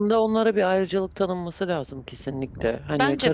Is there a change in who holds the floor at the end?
No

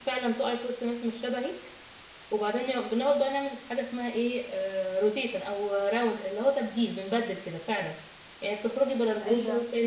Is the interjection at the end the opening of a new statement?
No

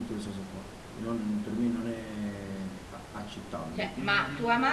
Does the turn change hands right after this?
Yes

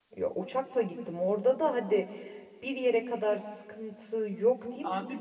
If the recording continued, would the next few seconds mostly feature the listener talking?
Yes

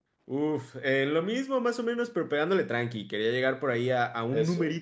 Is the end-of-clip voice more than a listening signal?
No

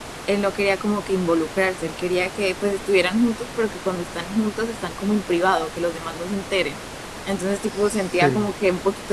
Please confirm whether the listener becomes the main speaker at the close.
No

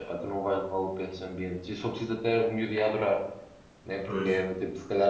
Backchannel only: Yes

